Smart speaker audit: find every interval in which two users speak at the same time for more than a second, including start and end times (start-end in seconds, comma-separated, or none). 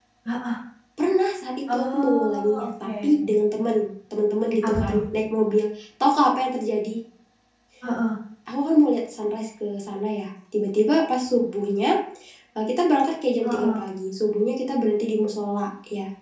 1.7-3.1